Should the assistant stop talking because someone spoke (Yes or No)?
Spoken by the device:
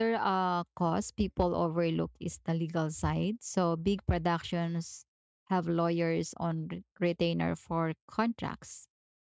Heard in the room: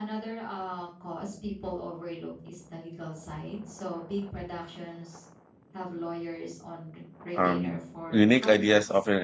Yes